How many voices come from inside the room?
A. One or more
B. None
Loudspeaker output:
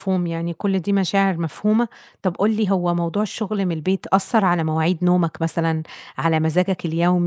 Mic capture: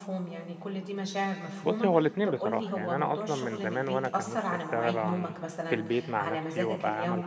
A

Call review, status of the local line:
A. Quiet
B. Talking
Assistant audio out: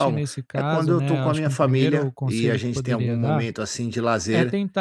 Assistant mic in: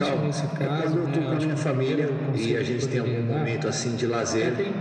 A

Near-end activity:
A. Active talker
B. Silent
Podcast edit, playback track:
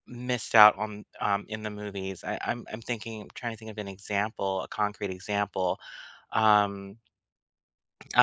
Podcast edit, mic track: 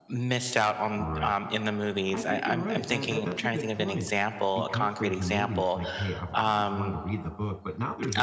A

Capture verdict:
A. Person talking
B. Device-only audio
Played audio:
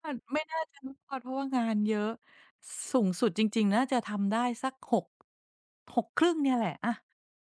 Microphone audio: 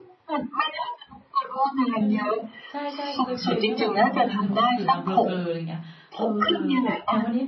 A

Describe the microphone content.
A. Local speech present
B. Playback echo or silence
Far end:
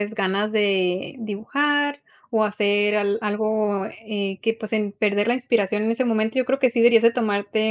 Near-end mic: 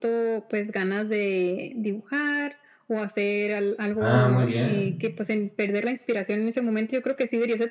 A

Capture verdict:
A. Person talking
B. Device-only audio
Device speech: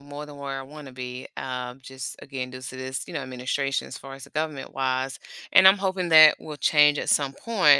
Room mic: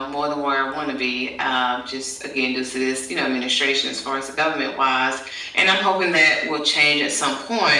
B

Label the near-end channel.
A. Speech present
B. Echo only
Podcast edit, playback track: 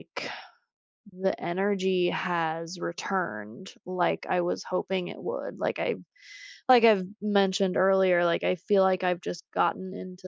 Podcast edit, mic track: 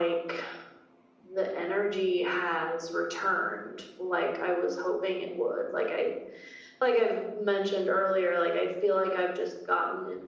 B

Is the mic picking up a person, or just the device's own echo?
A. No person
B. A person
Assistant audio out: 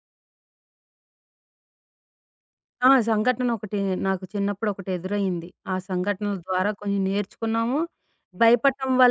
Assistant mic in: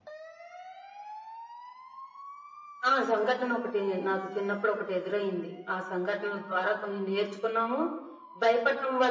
A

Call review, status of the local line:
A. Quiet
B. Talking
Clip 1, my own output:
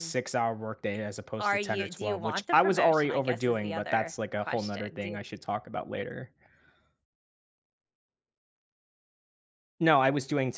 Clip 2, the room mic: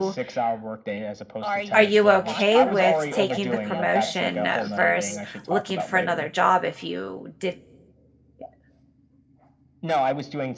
B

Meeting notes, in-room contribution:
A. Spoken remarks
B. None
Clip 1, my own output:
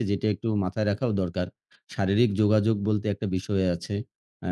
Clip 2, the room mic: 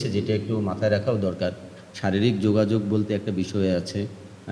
B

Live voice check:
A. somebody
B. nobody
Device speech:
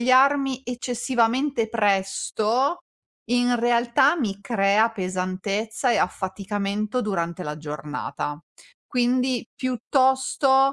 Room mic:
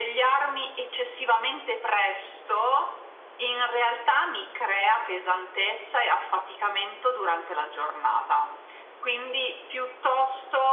B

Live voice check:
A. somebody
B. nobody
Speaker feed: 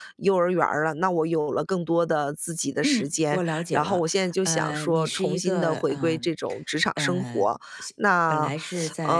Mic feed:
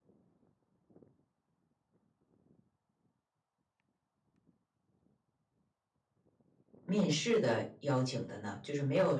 A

